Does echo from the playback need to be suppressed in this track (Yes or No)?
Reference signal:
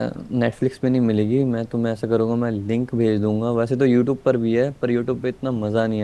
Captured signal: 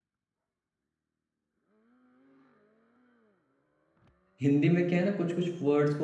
No